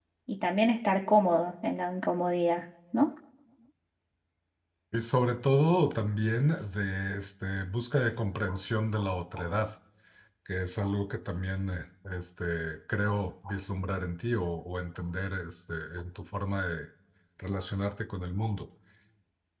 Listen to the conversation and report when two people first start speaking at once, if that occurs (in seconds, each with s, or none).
none